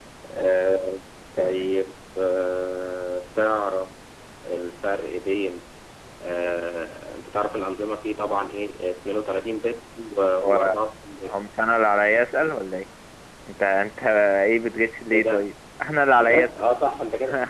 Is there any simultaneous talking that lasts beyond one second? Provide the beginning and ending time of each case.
none

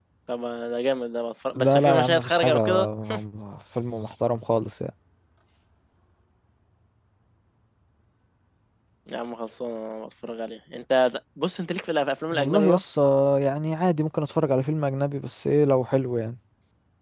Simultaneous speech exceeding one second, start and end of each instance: 1.6-2.9

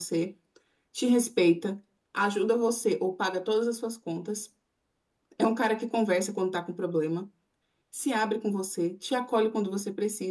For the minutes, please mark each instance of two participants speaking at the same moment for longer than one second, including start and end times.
none

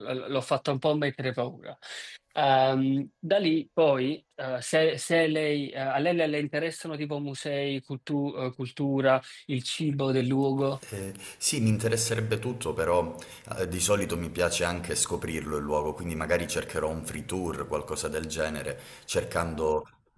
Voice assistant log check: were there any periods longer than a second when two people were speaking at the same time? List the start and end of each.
none

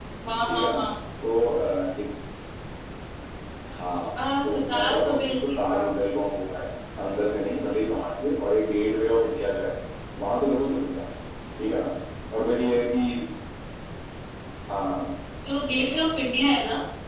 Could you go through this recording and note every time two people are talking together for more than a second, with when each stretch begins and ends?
4.4-6.0

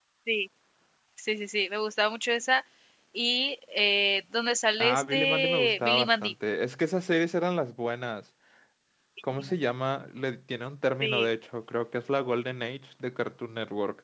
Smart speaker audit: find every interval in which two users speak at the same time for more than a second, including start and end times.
4.8-6.3

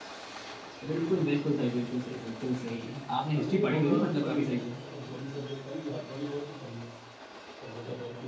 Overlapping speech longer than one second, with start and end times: 3.2-4.7

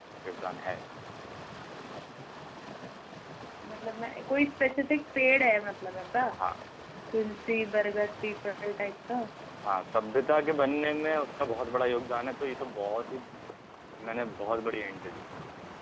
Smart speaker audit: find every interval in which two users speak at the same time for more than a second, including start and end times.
none

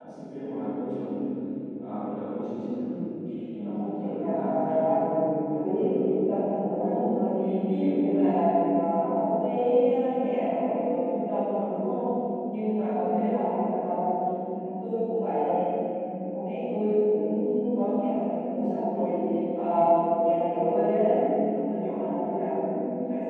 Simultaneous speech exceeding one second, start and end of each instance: 3.5-4.8

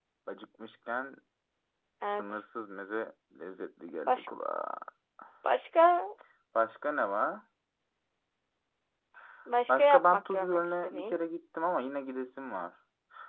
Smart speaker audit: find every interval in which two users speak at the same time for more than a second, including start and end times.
9.7-11.2

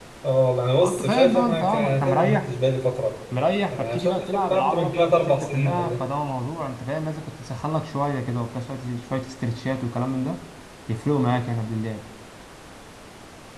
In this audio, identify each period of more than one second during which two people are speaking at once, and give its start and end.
0.8-2.5, 3.7-6.0

